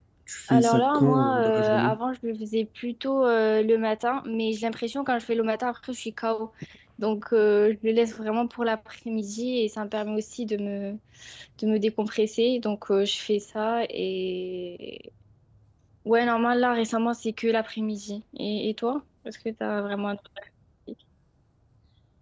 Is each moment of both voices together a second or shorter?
No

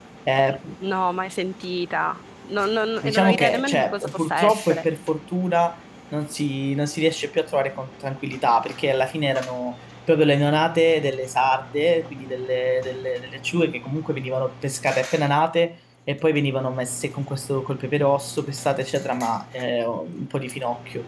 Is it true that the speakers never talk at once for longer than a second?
No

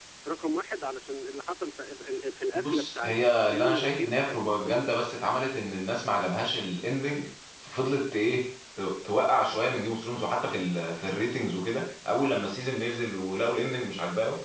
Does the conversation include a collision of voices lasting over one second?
Yes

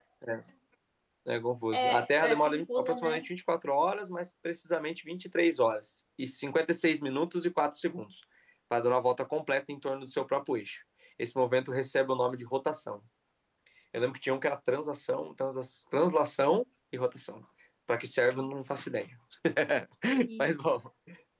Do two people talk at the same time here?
Yes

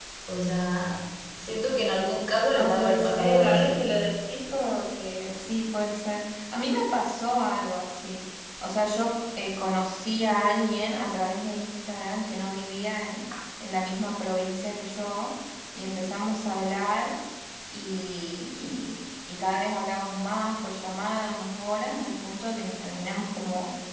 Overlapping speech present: Yes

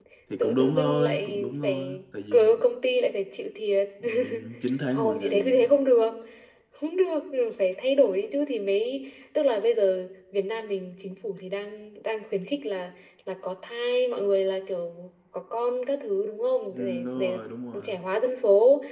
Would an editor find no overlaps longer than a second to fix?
No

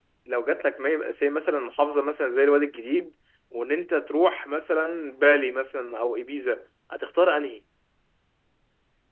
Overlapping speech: No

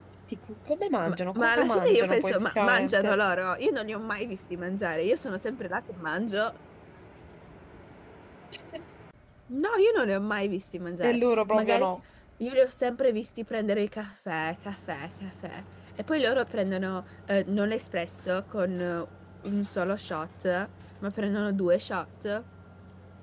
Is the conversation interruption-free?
No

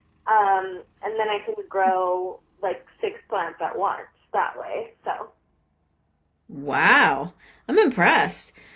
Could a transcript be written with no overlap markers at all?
Yes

